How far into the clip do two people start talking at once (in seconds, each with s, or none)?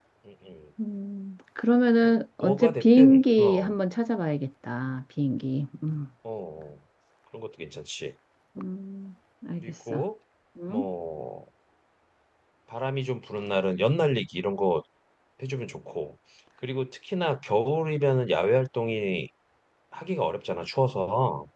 2.4 s